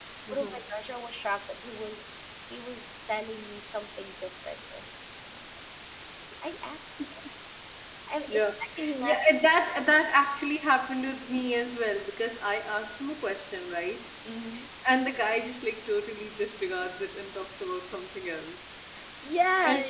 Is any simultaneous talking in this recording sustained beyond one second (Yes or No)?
No